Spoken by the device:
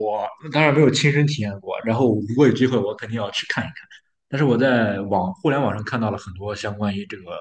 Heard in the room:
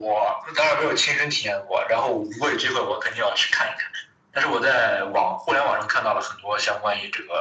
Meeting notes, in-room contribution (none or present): none